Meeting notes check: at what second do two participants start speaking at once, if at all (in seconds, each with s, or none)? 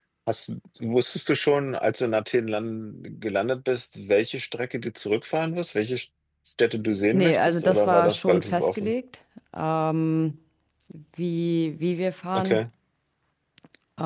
7.1 s